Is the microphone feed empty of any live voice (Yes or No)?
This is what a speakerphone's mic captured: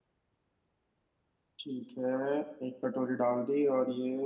No